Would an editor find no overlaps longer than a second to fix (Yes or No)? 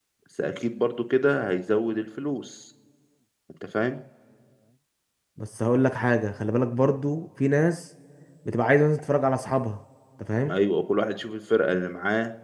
Yes